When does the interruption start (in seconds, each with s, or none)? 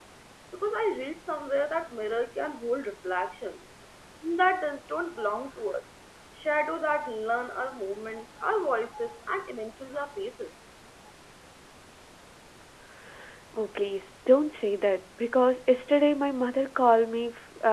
none